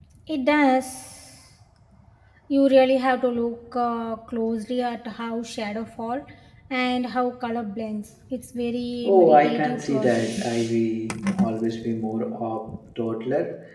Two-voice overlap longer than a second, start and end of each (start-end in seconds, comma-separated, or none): 9.0-10.5